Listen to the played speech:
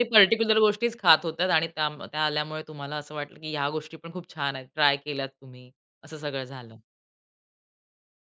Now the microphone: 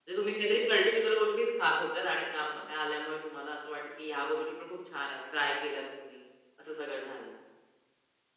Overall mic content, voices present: echo only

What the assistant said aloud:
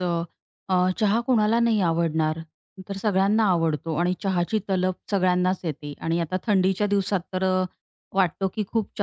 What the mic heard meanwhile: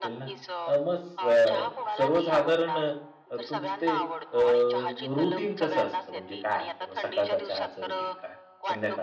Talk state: both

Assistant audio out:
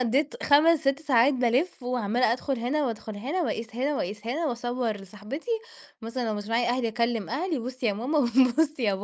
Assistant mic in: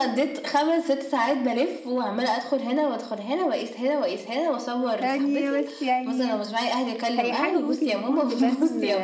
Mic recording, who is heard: both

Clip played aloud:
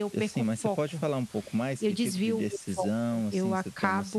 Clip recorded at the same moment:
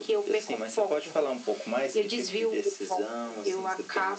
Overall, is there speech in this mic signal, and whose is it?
echo only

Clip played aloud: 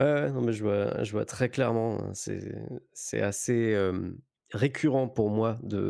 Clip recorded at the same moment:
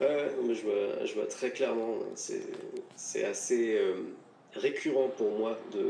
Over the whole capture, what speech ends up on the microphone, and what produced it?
echo only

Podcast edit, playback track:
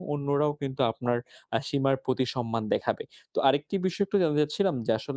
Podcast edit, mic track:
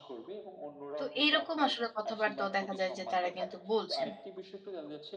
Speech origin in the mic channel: both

